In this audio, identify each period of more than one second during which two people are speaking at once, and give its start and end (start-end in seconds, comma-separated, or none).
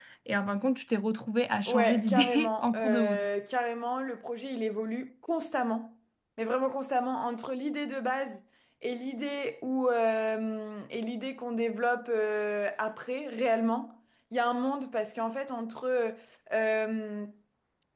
1.7-3.3